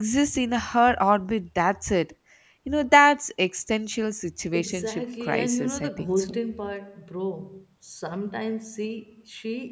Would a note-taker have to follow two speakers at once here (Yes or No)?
Yes